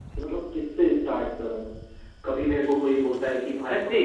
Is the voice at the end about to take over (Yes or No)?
Yes